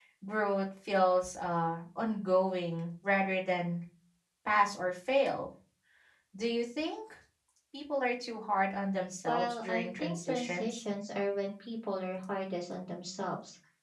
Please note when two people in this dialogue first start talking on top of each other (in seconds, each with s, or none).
9.3 s